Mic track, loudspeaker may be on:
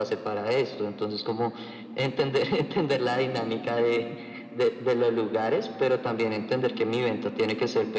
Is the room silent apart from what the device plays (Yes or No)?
Yes